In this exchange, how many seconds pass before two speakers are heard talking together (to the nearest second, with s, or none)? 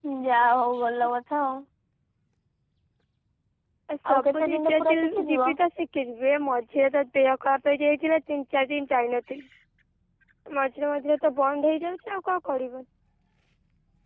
4 s